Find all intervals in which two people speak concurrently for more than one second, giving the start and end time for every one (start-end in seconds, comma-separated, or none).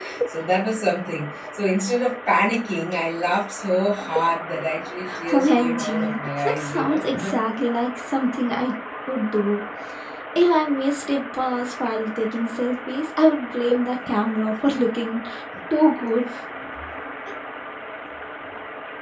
5.3-7.0